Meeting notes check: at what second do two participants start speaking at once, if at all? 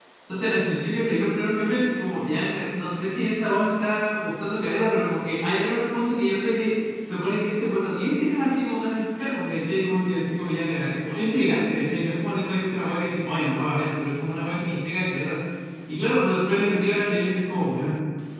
none

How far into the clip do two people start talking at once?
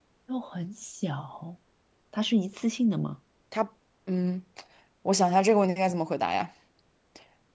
none

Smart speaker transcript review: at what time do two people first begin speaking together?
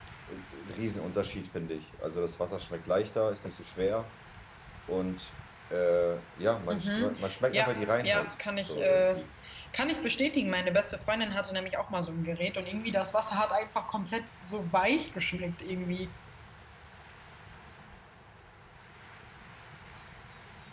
6.7 s

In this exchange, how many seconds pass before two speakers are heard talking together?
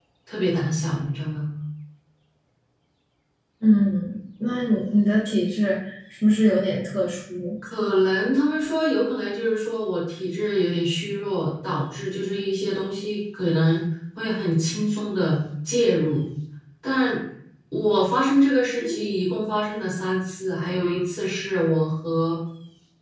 none

